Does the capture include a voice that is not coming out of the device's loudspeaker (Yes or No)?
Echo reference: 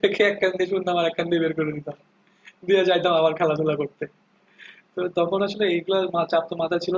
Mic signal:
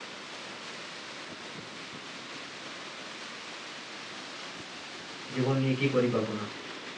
Yes